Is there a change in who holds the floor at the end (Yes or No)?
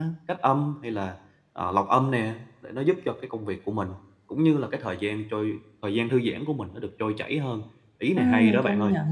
Yes